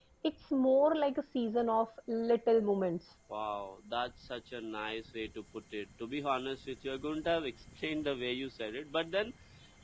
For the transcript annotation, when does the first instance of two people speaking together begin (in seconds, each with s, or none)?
none